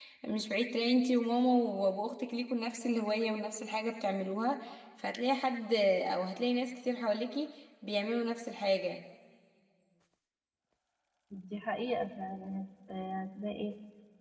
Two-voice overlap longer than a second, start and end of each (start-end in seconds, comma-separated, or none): none